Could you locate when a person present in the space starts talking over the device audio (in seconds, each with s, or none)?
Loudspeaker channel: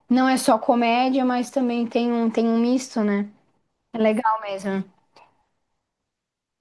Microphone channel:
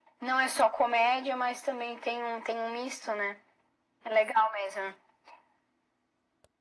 none